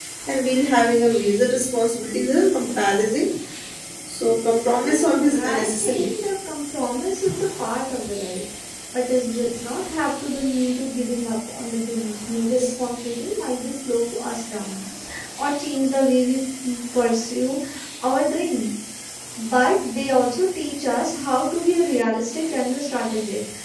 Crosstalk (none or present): present